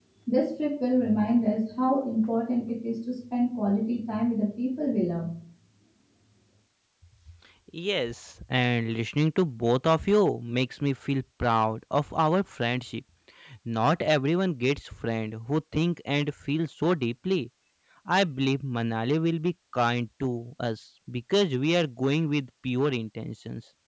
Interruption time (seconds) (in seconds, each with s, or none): none